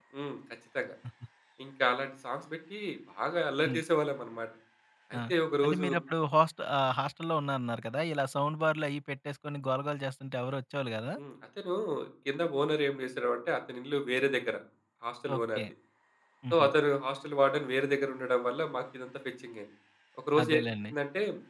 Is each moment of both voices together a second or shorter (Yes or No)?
Yes